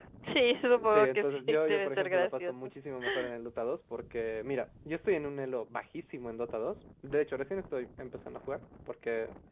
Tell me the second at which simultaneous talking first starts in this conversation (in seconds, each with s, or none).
0.8 s